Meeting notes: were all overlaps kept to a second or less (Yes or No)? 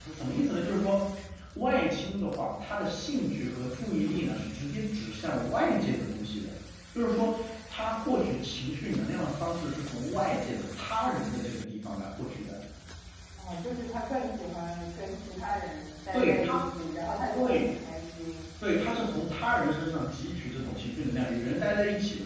Yes